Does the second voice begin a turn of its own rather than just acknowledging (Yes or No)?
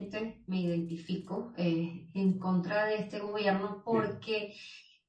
No